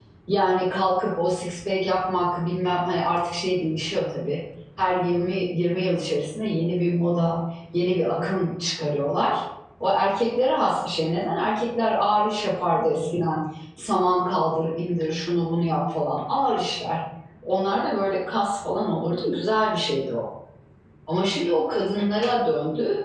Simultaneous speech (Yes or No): No